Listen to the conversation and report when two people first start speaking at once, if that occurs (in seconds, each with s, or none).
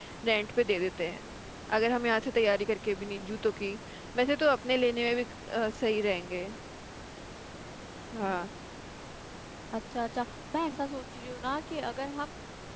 none